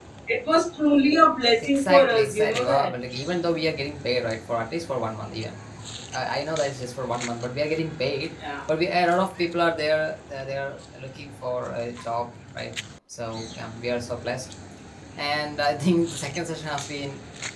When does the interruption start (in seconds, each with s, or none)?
1.6 s